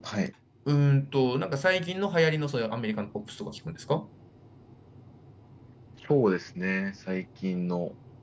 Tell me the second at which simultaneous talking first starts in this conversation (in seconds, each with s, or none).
none